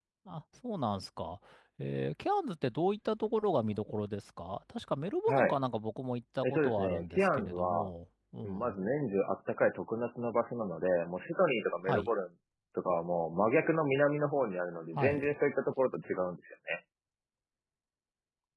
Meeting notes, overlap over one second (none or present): present